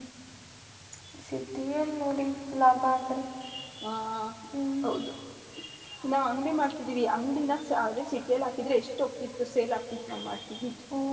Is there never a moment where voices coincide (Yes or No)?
Yes